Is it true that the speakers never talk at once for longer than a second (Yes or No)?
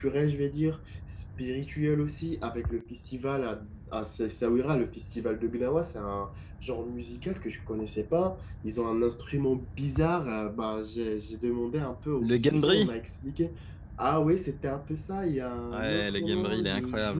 No